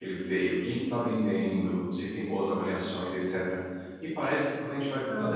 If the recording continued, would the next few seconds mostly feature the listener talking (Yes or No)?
No